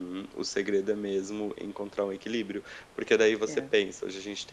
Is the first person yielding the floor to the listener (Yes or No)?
No